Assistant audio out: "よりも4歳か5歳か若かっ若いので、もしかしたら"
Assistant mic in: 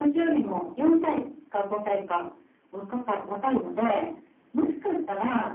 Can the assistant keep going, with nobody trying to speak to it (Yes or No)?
Yes